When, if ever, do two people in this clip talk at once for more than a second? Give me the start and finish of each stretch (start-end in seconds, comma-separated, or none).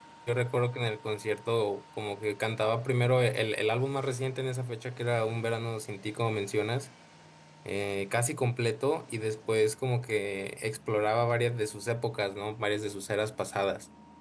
none